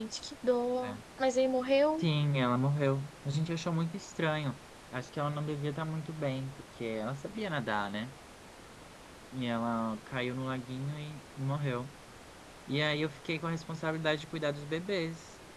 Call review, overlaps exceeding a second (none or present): none